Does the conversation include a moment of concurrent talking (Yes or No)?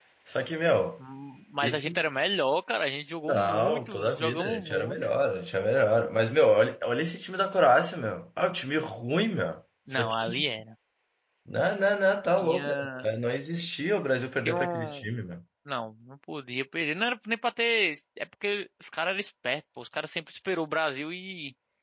Yes